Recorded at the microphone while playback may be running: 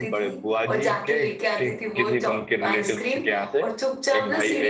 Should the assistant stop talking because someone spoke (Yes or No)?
Yes